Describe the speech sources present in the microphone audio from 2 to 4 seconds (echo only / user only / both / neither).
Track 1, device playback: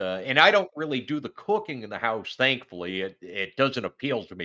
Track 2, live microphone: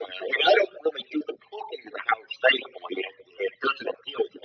echo only